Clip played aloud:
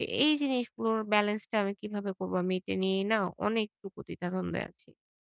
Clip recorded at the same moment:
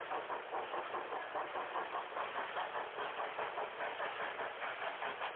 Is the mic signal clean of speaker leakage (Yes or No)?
Yes